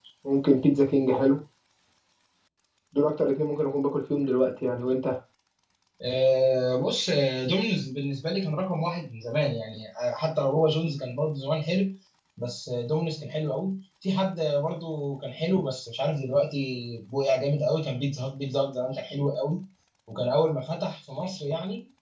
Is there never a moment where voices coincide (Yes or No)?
Yes